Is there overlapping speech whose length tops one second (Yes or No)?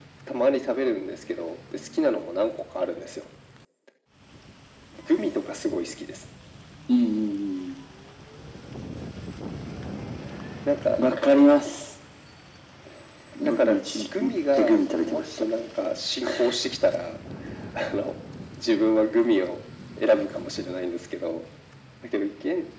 Yes